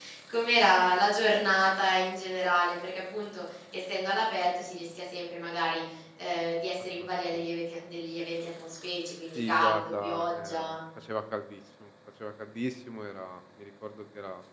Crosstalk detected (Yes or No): Yes